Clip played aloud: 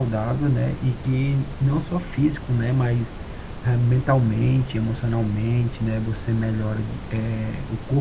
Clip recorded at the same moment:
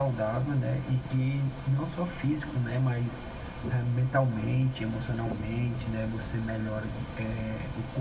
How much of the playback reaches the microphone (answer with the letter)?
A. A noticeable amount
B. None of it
A